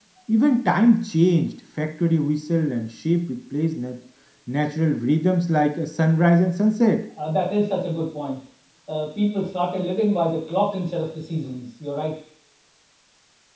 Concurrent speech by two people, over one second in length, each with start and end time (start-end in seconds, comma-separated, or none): none